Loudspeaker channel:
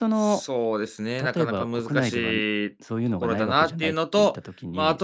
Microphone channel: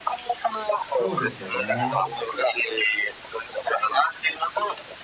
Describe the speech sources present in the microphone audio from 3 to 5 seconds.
echo only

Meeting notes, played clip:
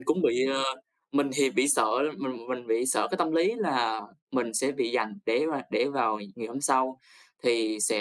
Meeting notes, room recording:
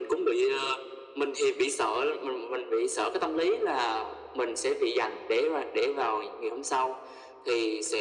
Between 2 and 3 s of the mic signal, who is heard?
echo only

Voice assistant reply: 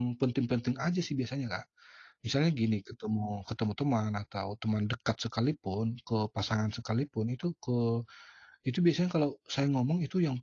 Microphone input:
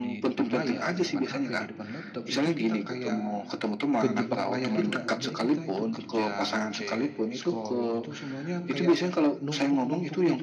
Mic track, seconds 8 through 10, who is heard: both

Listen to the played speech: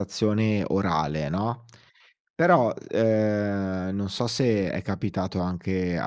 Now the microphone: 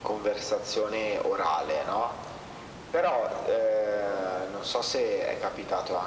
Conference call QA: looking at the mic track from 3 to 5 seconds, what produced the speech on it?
echo only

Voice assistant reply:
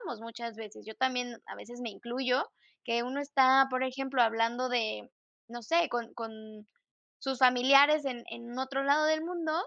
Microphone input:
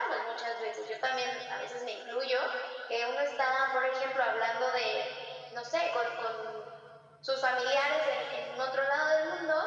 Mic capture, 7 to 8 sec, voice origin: echo only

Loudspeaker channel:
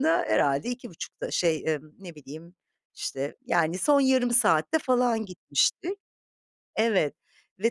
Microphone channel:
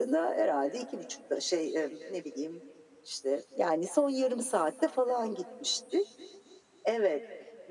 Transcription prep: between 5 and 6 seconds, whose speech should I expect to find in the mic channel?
echo only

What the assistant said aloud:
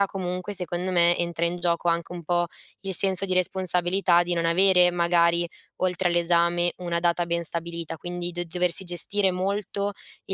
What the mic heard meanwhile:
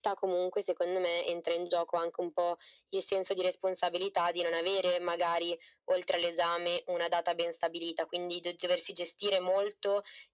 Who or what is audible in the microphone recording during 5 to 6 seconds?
echo only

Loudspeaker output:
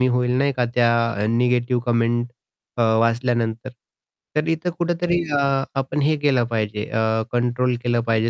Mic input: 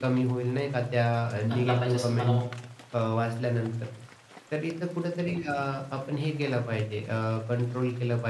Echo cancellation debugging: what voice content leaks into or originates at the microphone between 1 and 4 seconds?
both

